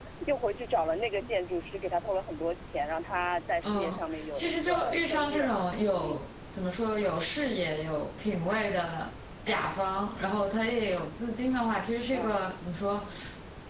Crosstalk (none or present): present